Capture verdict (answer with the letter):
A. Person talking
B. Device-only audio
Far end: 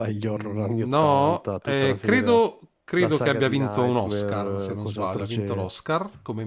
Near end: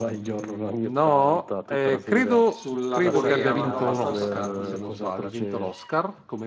A